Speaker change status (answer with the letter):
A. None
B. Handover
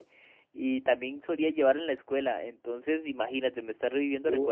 B